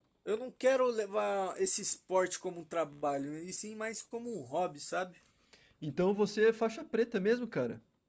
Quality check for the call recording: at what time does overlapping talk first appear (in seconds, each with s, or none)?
none